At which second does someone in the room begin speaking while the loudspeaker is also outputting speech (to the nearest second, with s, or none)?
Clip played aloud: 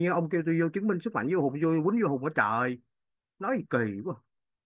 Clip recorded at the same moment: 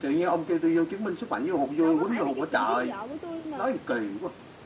2 s